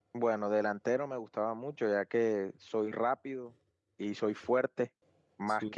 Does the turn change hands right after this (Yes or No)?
No